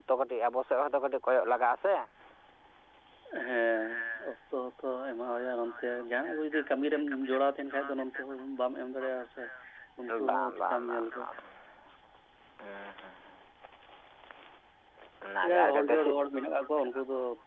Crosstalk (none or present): present